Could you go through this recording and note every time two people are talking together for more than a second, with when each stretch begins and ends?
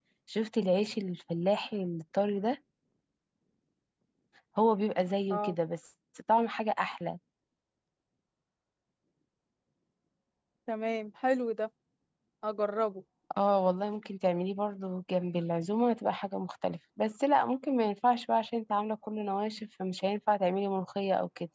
none

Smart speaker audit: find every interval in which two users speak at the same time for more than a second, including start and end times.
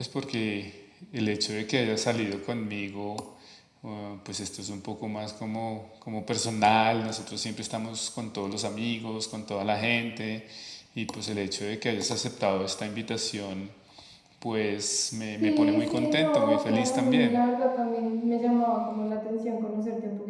15.4-17.4

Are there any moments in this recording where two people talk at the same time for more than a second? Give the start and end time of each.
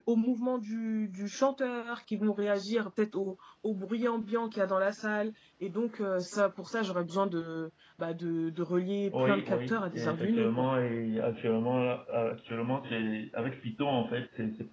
9.2-10.7

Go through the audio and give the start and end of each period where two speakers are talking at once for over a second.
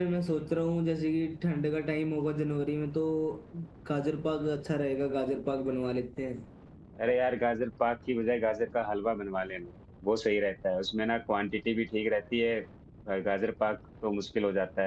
none

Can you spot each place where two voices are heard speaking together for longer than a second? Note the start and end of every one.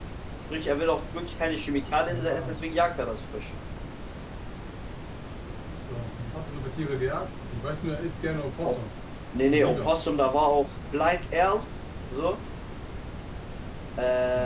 none

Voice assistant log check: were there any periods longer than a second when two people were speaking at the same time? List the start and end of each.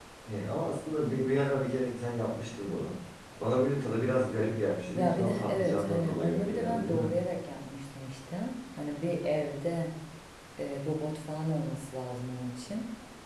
4.9-7.1

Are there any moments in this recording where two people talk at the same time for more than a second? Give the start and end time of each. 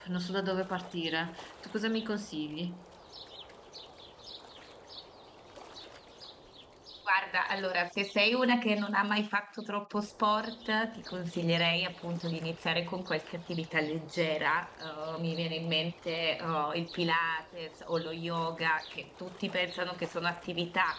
none

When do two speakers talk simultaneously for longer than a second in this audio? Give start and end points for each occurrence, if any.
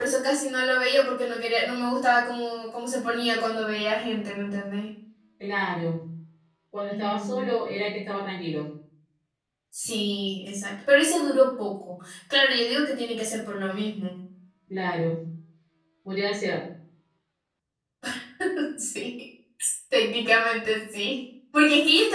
none

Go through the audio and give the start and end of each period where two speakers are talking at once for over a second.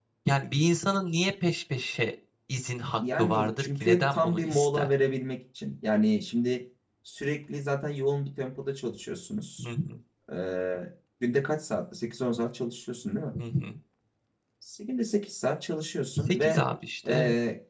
3.0-4.9

